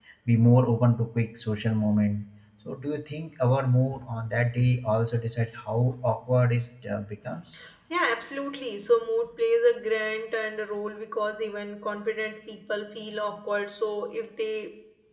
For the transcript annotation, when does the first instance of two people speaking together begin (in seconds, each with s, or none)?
none